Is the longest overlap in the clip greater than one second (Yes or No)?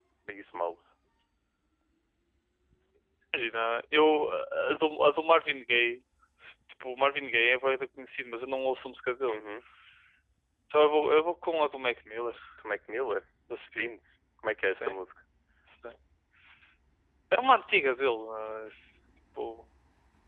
No